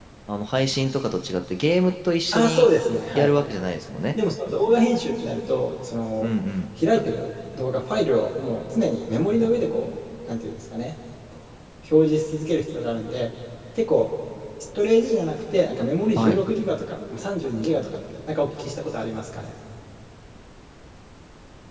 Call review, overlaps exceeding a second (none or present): none